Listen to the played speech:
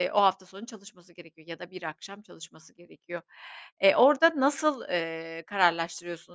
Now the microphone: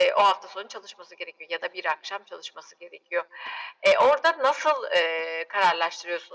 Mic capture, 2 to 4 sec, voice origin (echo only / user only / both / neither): echo only